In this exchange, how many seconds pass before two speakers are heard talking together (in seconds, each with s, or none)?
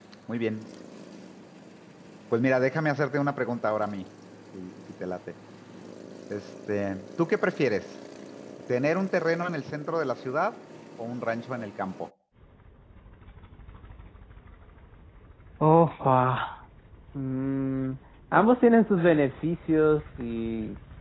none